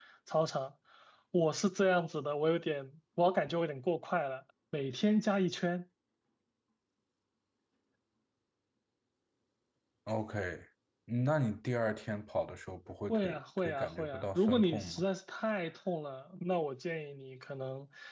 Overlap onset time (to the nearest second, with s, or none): 13 s